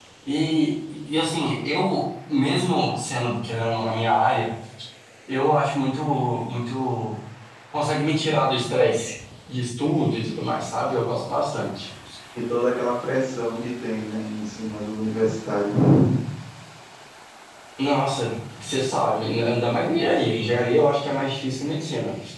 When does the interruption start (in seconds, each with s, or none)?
none